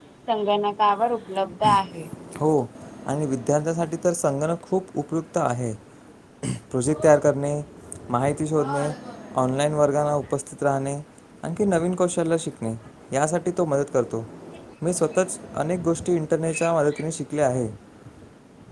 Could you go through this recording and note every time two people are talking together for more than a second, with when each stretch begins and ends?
none

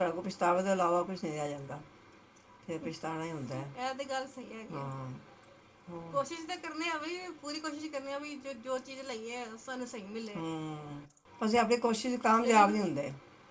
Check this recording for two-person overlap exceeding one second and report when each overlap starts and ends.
none

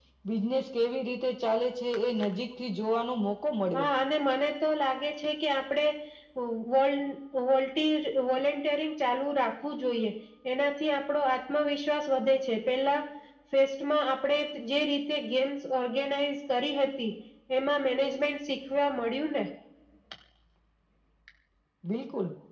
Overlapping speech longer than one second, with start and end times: none

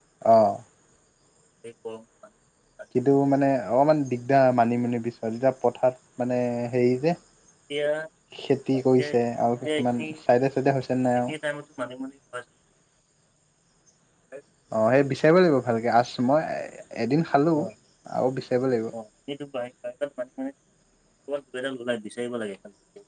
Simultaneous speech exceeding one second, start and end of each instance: none

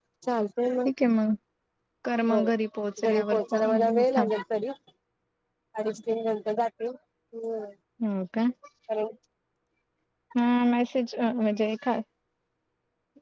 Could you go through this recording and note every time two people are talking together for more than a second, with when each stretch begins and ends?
3.0-4.3

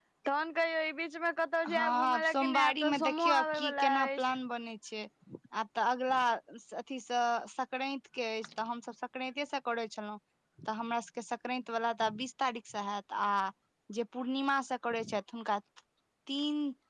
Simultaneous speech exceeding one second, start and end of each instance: 1.7-4.2

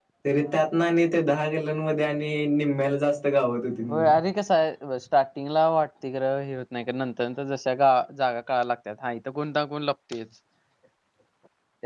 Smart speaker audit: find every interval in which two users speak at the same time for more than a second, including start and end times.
none

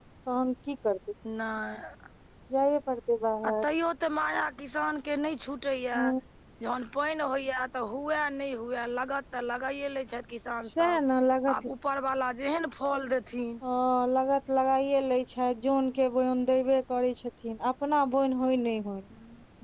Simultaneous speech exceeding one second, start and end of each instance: none

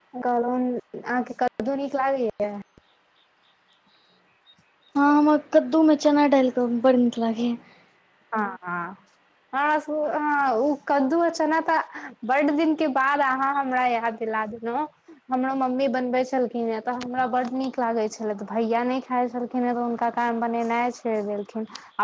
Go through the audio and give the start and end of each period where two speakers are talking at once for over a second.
none

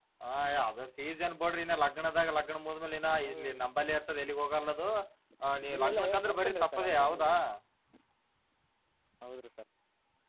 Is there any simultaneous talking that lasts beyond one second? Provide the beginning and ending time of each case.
5.7-7.2

